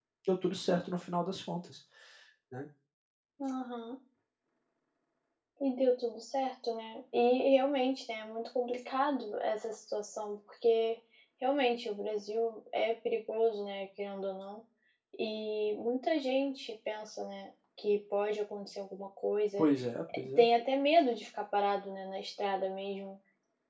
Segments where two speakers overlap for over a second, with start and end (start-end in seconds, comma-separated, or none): none